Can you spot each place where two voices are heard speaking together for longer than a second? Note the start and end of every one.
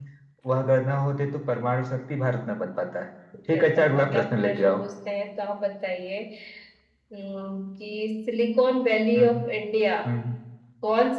3.5-4.8

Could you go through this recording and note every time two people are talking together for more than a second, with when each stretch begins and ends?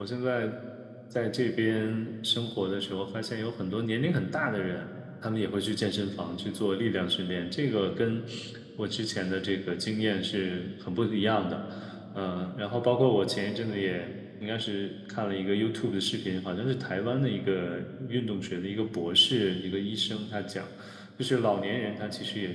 none

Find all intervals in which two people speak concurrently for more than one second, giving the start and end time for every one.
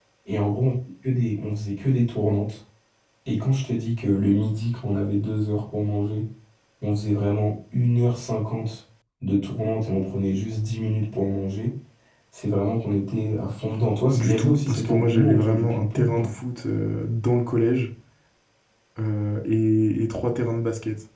14.1-16.3

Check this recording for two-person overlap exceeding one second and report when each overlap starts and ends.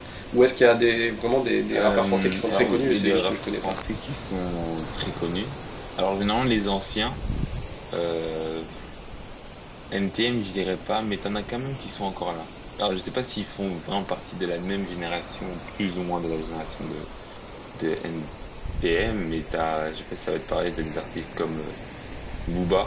1.7-3.7

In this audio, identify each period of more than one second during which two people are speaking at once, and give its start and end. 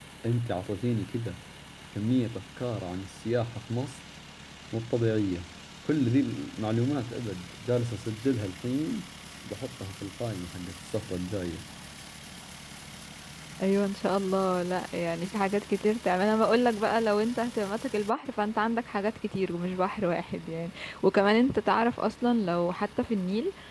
none

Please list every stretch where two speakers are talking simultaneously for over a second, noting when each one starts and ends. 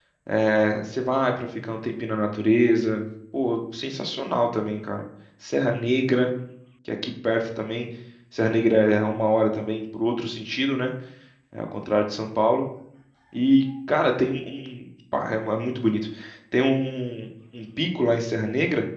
none

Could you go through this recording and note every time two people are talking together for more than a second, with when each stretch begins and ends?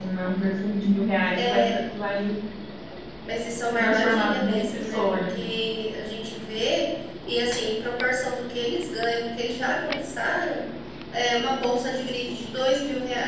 3.8-5.4

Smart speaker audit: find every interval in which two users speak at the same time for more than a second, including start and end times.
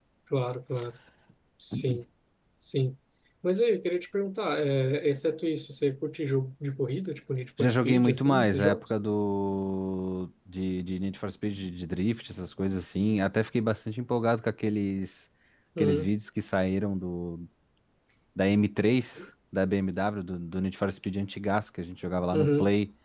7.6-8.8

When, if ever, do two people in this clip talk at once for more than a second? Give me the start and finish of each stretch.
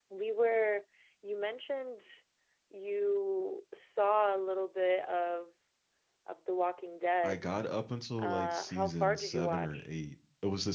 8.2-9.7

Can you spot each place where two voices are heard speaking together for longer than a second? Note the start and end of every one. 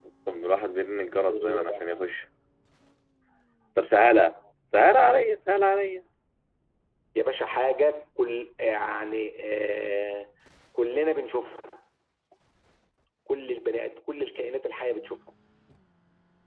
none

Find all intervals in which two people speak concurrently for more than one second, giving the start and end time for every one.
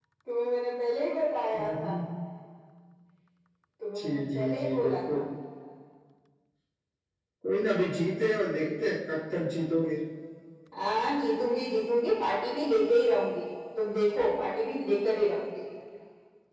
4.0-5.2

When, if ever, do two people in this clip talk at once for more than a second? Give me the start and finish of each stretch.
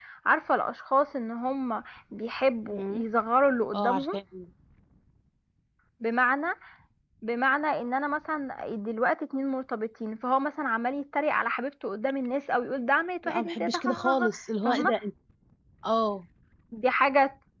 13.2-14.9

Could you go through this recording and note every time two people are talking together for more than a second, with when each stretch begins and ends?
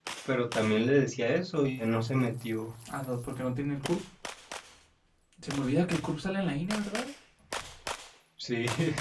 none

